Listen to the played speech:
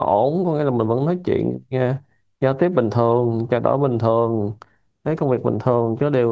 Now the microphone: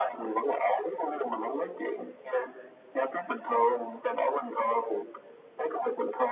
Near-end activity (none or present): none